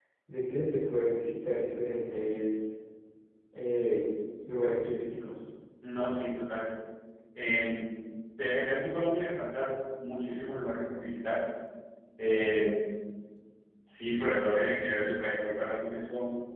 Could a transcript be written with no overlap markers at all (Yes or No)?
Yes